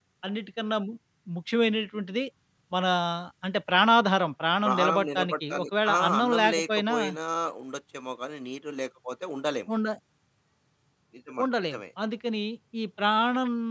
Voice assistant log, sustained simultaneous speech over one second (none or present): present